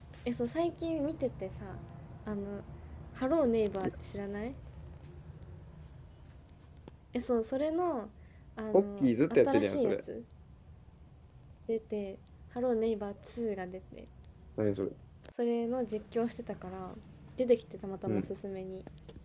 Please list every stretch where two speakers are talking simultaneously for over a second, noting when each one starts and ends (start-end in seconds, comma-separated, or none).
8.7-10.0